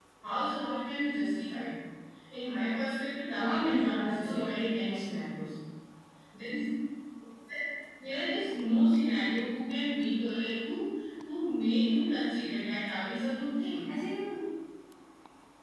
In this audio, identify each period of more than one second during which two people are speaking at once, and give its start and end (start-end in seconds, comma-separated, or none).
3.4-5.0